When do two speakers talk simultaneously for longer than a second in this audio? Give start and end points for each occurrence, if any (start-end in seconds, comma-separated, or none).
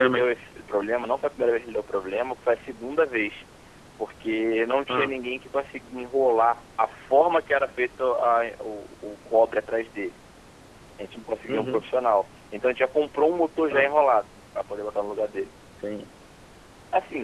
none